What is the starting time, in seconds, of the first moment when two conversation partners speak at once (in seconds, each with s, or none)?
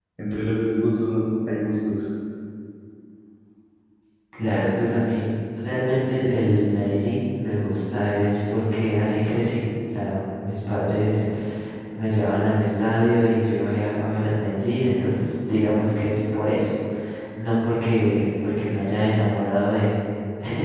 none